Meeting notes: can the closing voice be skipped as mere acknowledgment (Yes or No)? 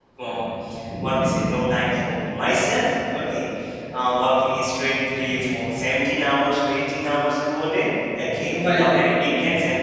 Yes